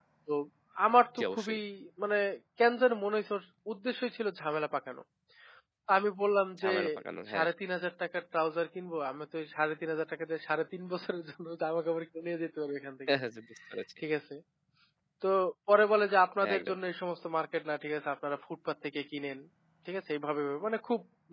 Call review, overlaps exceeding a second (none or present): none